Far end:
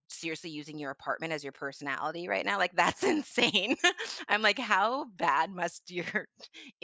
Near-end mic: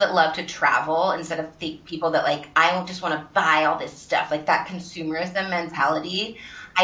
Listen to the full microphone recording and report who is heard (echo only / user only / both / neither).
user only